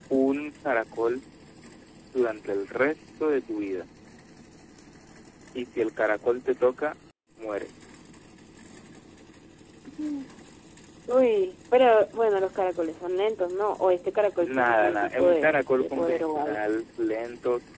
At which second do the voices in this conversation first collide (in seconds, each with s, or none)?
14.4 s